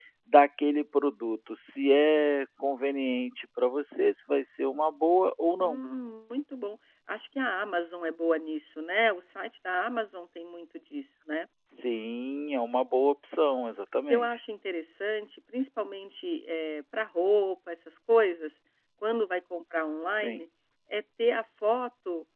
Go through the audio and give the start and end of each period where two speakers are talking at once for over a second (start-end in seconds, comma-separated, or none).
none